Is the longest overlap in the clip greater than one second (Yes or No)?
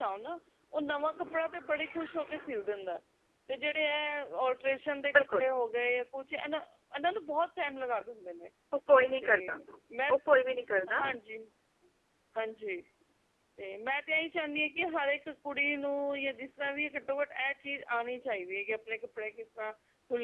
No